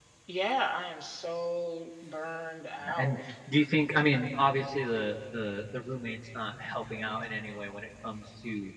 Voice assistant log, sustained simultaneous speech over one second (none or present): none